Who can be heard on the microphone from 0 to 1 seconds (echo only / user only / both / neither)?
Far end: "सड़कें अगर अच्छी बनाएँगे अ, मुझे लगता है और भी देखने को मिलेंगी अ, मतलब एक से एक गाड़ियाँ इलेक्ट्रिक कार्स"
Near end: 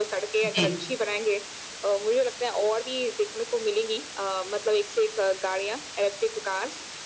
both